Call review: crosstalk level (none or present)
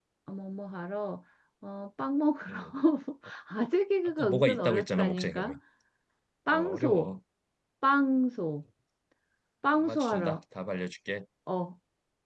present